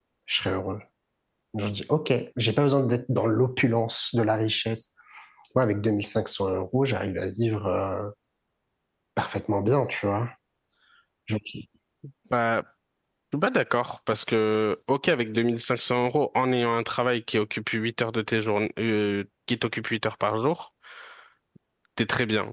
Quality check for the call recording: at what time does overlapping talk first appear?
none

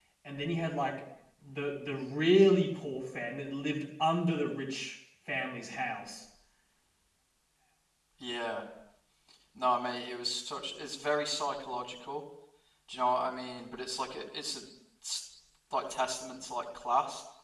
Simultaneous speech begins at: none

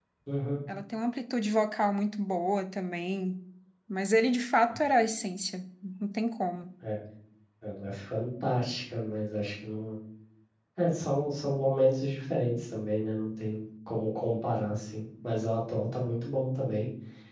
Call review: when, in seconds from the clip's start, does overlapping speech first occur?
none

